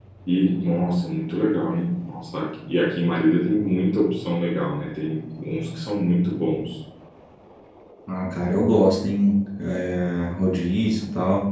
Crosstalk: none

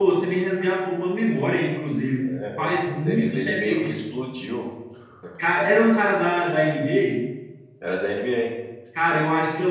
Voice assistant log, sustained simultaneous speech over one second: present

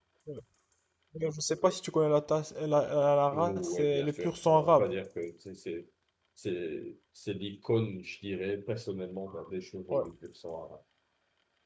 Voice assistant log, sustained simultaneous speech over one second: present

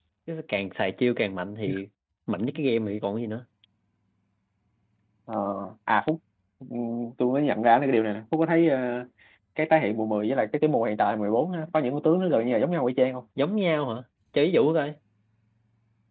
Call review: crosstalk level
none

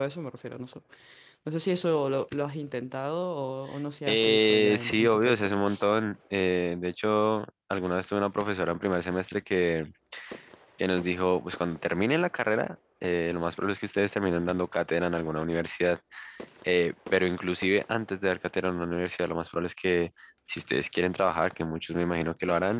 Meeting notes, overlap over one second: present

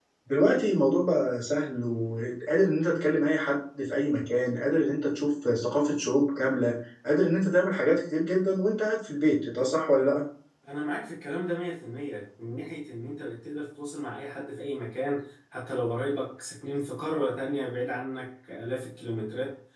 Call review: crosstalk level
none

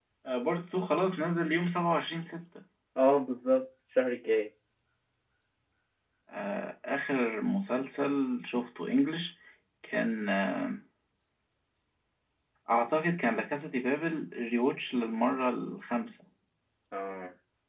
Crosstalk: none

